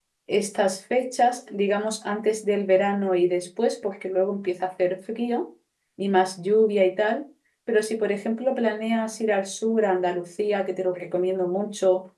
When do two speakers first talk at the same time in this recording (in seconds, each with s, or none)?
none